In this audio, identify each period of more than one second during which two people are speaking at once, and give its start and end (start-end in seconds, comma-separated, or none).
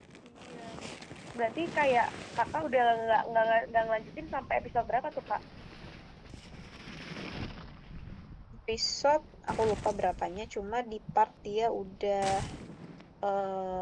none